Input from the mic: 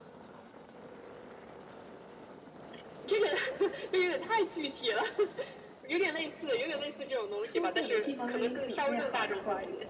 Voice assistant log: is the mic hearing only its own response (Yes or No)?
No